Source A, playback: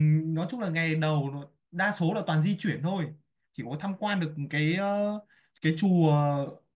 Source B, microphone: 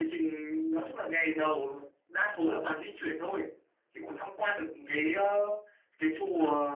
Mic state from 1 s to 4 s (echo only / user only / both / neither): echo only